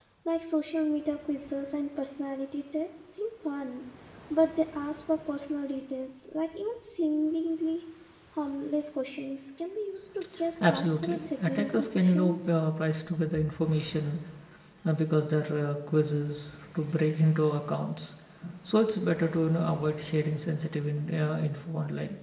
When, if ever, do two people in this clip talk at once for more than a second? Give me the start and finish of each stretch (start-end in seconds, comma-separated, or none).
10.7-12.5